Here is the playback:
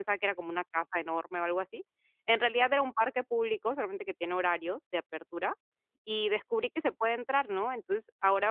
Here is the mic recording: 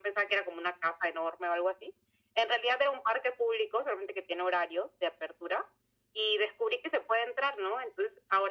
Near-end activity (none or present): none